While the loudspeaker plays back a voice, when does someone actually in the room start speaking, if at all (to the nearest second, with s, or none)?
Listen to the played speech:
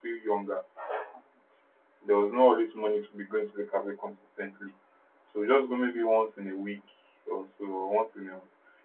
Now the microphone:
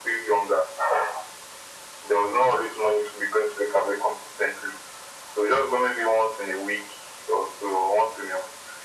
none